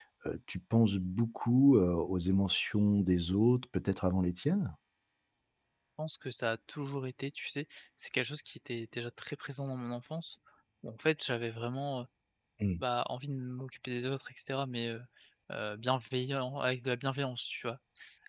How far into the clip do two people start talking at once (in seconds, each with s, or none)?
none